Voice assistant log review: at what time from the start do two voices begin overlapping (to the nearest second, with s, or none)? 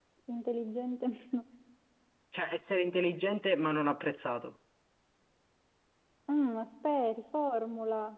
none